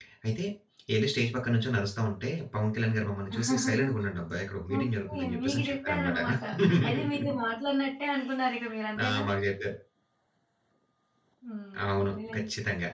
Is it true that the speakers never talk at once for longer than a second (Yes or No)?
No